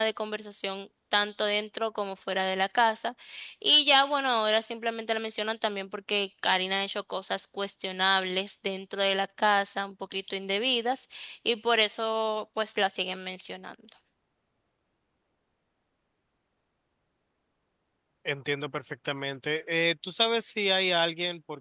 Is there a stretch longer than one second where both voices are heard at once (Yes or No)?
No